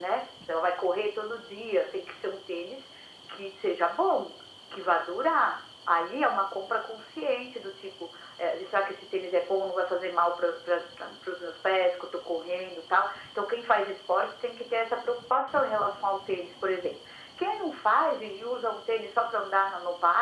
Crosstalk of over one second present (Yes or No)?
No